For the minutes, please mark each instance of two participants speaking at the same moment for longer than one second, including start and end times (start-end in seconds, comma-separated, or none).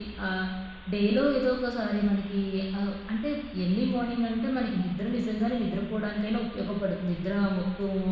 none